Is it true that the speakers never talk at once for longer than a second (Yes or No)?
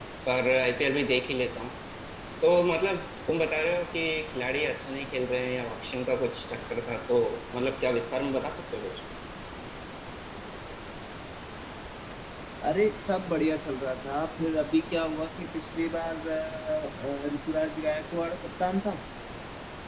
Yes